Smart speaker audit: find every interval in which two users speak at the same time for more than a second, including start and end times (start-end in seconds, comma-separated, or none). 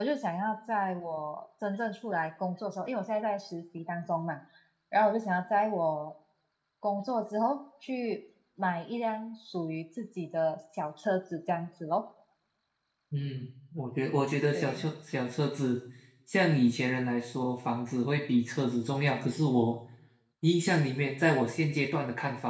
none